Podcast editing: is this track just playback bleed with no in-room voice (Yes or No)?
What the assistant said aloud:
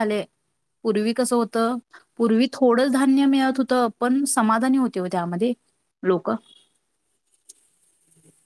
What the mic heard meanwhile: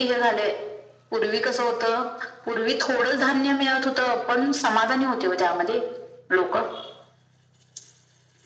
Yes